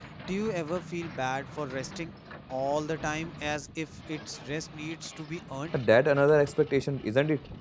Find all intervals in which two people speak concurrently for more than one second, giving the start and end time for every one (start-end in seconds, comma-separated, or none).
none